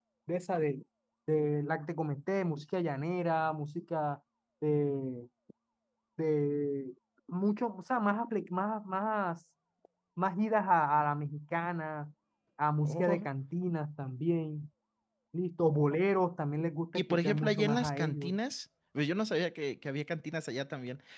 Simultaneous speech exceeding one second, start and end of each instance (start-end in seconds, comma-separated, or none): 16.9-18.3